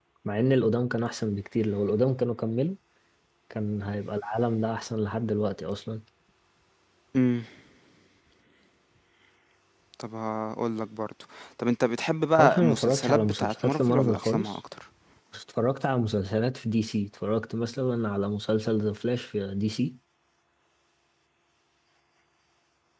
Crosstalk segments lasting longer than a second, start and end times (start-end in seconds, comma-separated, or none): 12.4-14.6